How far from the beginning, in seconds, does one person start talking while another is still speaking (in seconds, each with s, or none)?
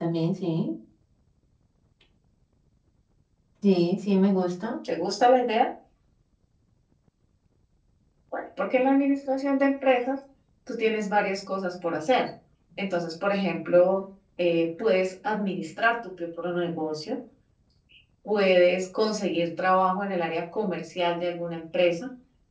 none